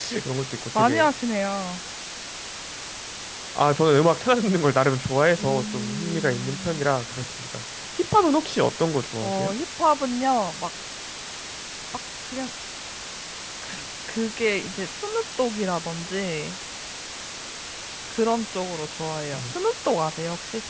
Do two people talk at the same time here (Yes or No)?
Yes